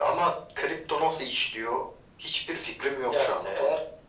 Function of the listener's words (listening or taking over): taking over